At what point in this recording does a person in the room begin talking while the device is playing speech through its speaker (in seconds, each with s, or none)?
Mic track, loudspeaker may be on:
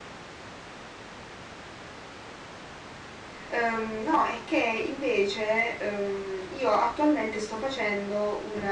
3.5 s